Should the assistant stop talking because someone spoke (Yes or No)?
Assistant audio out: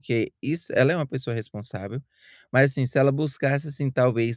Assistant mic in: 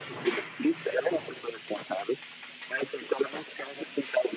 No